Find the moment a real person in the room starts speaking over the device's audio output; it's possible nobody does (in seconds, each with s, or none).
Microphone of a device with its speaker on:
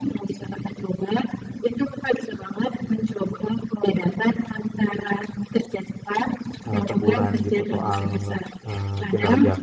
6.6 s